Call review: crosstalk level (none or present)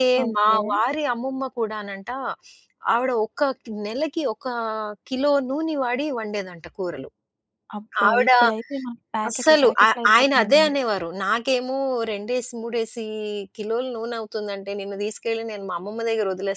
present